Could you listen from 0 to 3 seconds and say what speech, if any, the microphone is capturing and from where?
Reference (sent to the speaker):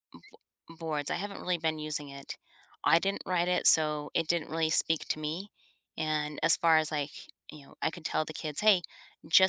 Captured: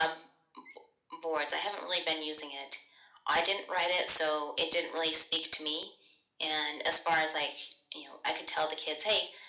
echo only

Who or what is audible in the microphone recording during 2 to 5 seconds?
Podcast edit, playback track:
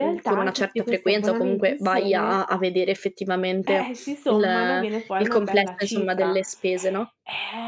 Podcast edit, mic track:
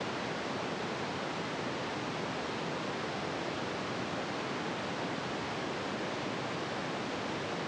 neither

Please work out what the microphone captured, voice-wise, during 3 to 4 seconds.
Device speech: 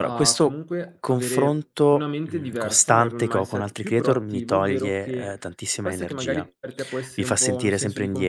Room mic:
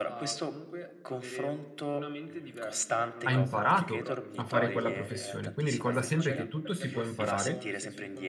both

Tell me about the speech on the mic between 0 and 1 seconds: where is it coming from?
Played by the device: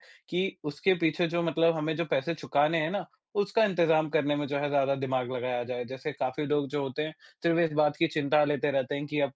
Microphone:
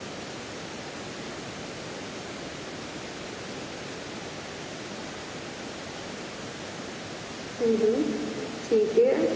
neither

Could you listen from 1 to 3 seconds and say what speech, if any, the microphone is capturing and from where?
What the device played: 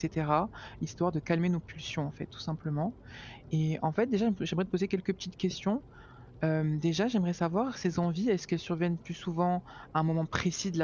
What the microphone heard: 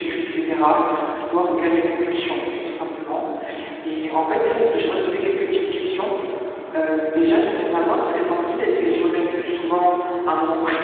echo only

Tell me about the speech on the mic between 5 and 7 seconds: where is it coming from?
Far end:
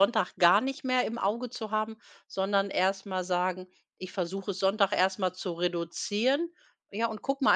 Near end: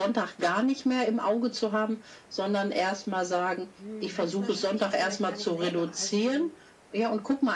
both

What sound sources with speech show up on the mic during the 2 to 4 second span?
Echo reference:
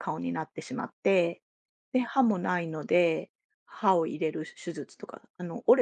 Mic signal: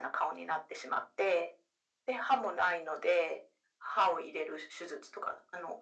echo only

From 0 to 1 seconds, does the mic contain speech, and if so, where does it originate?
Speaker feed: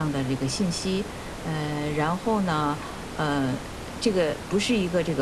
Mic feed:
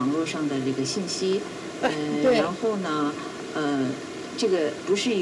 echo only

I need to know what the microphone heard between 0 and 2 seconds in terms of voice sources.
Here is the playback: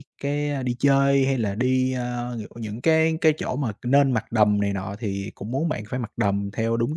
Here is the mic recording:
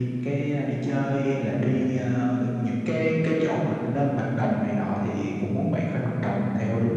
echo only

